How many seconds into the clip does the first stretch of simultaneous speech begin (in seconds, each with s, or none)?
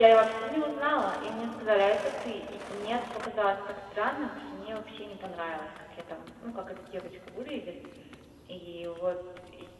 none